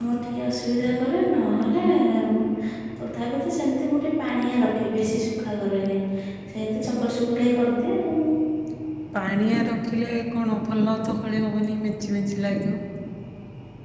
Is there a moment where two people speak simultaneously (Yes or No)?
No